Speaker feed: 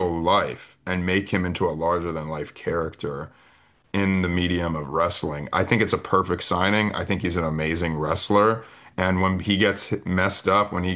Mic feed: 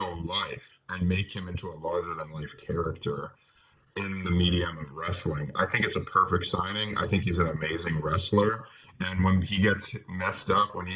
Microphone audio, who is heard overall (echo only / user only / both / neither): echo only